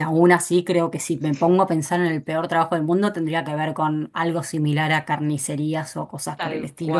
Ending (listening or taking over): listening